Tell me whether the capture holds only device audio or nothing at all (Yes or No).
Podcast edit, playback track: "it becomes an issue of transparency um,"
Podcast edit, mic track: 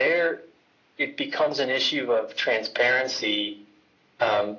Yes